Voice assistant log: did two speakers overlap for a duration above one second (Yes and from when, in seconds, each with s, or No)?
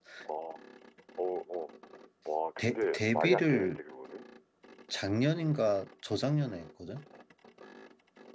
Yes, from 2.6 s